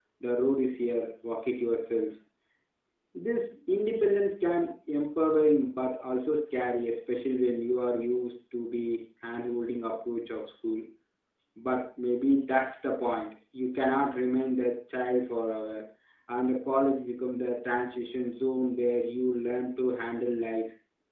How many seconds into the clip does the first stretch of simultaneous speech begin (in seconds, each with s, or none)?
none